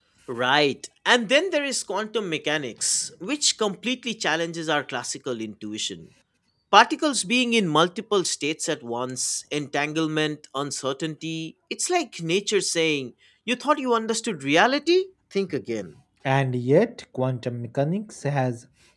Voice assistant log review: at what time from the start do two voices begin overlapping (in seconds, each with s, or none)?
none